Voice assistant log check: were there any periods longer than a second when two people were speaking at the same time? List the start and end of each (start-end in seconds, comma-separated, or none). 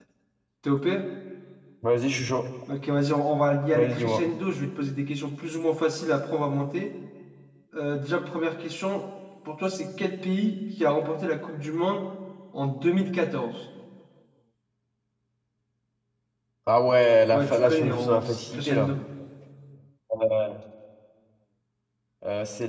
17.3-18.9